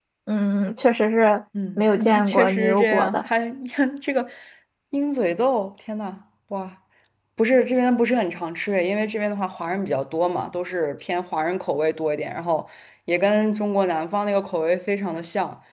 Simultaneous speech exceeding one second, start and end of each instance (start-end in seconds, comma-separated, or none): 1.8-3.3